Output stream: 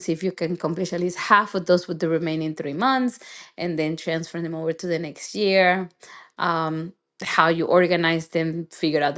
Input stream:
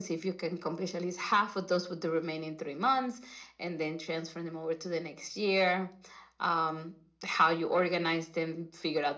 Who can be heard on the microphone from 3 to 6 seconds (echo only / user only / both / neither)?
echo only